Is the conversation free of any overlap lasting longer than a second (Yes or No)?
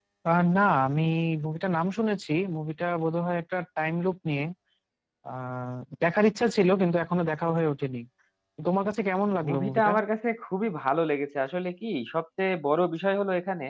Yes